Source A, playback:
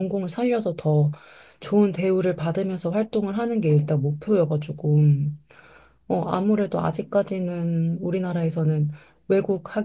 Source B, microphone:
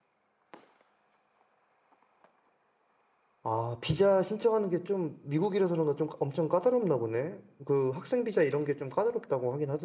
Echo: none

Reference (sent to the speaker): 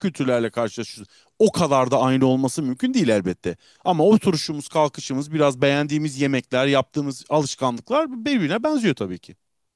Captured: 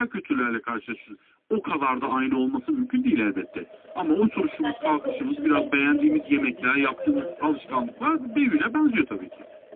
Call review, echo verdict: present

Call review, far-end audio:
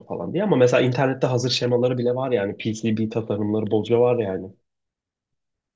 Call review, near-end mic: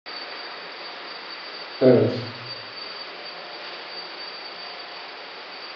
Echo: none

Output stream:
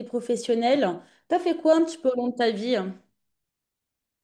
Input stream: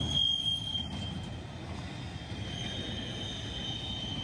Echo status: none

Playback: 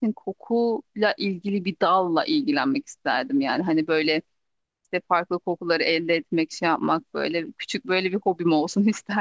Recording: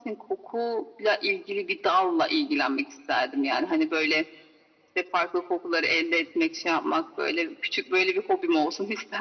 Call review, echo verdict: present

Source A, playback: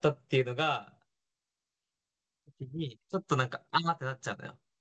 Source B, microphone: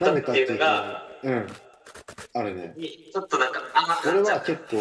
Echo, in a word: present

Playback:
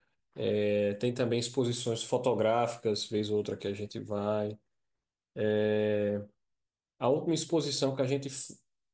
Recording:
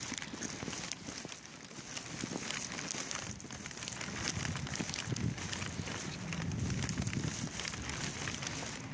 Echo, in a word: none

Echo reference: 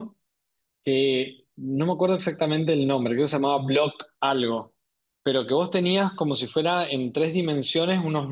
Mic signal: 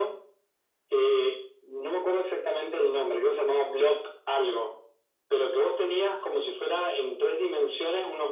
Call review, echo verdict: present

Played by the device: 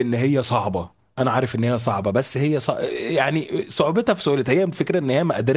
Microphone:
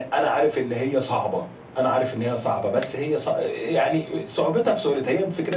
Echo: present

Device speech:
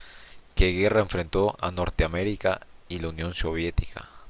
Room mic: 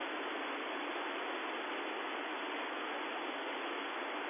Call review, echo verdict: none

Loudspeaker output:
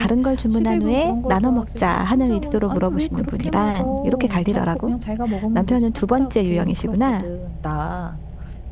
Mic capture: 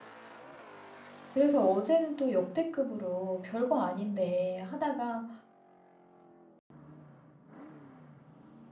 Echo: none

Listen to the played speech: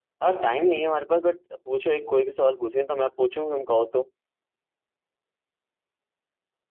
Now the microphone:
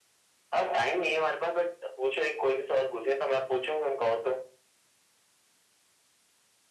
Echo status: present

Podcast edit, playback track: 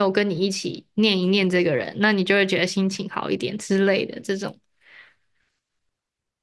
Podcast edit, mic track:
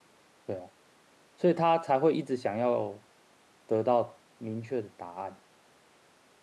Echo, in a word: none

